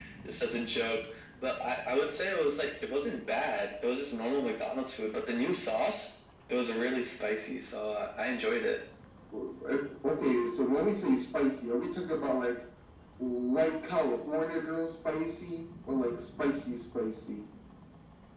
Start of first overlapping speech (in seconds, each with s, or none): none